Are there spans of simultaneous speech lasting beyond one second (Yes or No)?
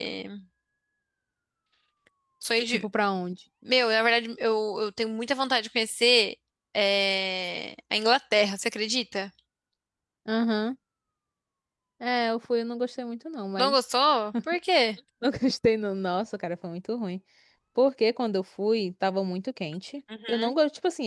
No